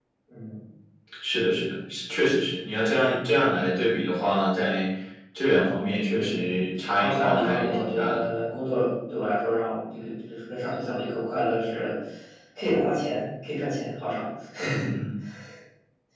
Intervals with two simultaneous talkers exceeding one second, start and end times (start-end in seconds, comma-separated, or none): 7.0-8.3